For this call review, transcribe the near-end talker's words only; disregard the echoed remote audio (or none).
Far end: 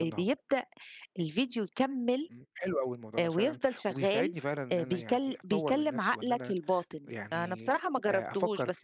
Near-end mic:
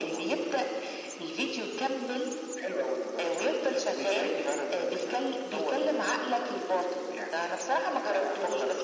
none